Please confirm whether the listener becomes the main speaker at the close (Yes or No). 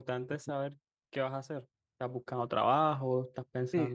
Yes